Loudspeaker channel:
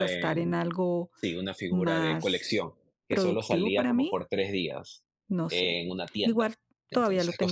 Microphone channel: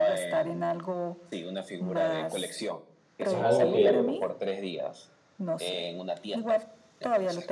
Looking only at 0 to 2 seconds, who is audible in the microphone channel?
echo only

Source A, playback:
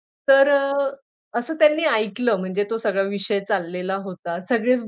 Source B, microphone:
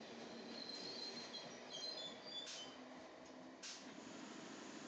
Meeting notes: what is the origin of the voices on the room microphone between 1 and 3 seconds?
neither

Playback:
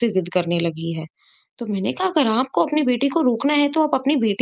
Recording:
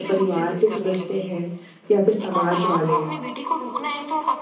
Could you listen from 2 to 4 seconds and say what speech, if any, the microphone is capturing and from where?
both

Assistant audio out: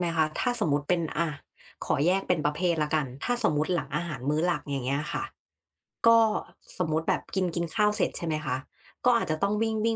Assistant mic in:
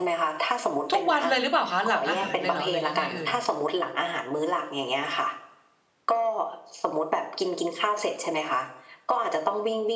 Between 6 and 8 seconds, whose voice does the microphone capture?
echo only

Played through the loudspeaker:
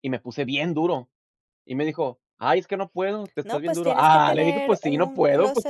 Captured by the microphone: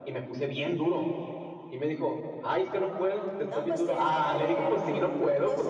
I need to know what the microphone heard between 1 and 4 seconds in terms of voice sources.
echo only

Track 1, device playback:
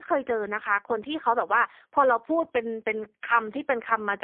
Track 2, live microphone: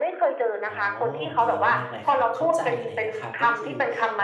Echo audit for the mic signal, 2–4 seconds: both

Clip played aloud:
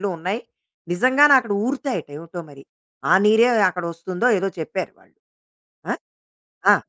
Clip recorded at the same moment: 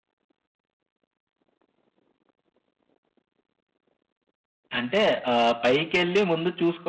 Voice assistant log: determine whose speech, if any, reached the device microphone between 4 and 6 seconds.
user only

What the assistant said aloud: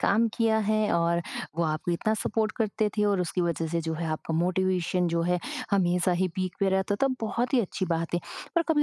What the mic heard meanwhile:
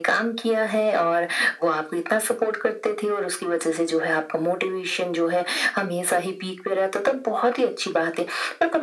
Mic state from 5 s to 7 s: echo only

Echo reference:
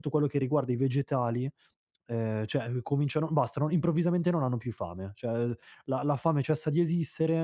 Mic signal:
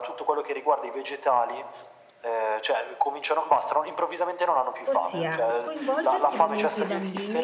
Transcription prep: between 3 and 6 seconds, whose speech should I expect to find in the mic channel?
both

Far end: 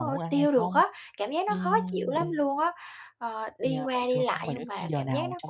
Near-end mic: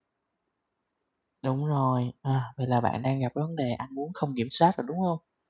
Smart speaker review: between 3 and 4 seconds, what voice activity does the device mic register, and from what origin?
user only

